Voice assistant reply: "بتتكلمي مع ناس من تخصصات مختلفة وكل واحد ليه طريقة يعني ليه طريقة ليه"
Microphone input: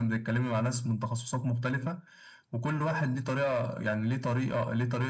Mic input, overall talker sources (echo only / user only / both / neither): echo only